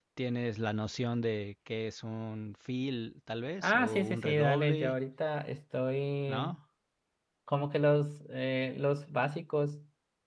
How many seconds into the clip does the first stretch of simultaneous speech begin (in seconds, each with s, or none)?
3.6 s